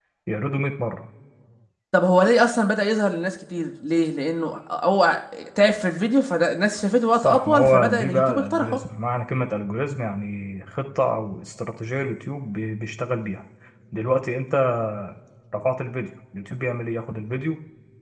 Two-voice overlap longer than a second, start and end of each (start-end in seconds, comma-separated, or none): 7.1-8.8